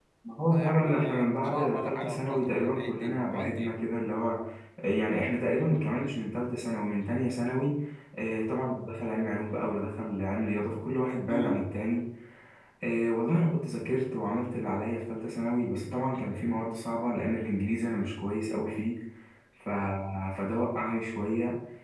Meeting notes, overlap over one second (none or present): present